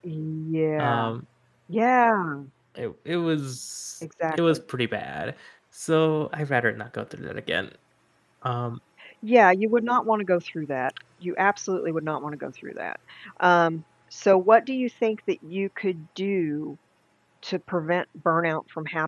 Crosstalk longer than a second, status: none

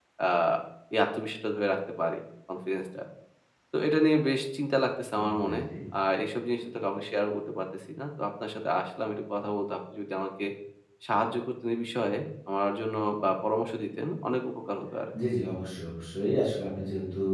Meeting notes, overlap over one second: none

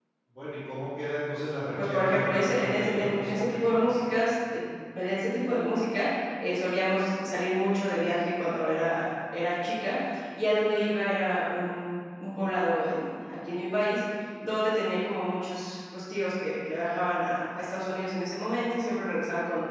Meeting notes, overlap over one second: present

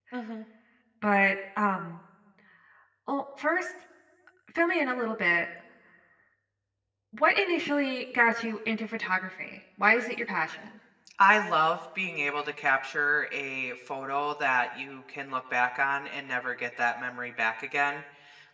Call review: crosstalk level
none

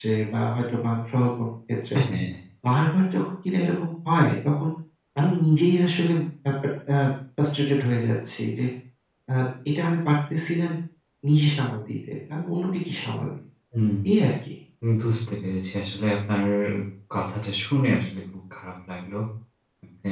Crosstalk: none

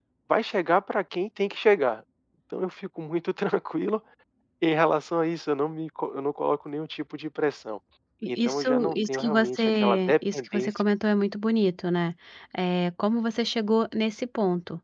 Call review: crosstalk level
present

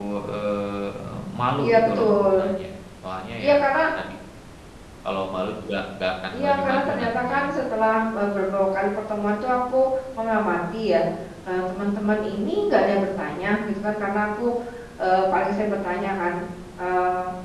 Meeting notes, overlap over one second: present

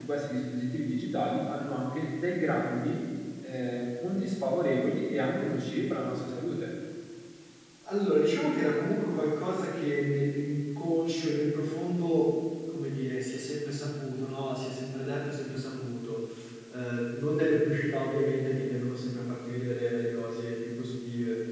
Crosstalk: none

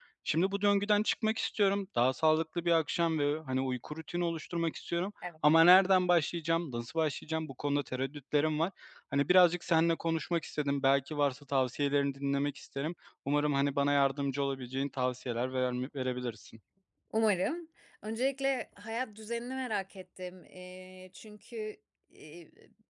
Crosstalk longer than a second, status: none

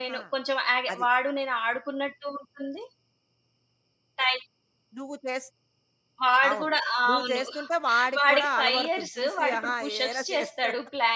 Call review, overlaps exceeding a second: present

